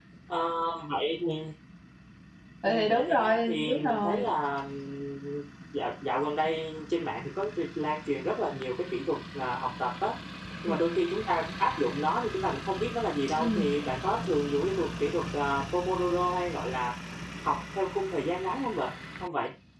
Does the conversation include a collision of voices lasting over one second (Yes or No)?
Yes